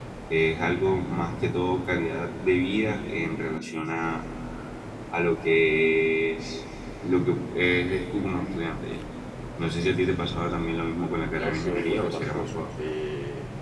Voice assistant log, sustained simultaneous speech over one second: present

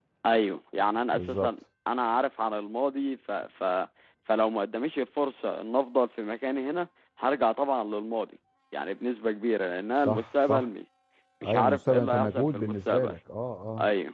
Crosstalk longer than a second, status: present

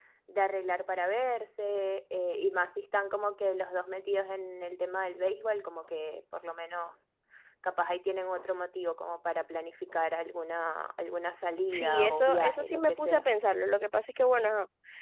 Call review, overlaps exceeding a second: present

